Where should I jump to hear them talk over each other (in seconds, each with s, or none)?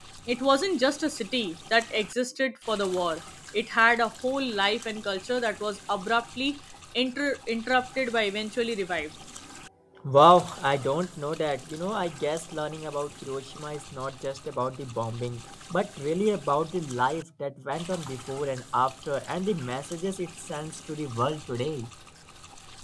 none